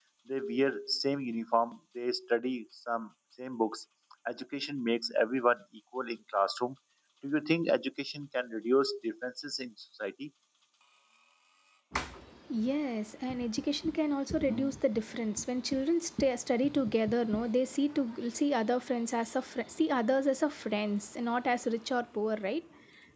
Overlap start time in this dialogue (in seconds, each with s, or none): none